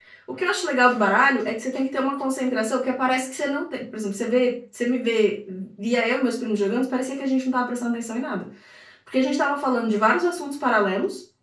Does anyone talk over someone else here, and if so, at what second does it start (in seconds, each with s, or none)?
none